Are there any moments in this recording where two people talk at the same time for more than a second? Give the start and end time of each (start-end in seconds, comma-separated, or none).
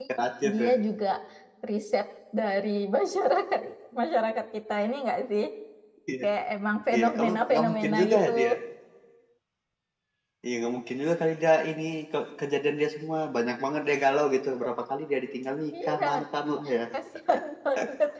6.9-8.3